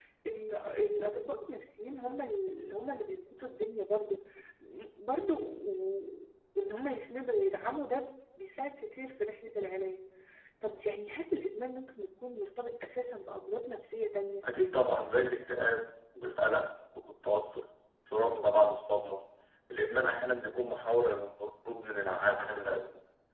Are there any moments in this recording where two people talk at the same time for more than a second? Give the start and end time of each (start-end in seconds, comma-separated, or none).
none